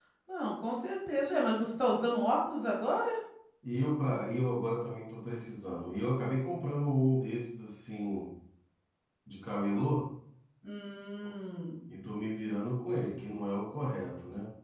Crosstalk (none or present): none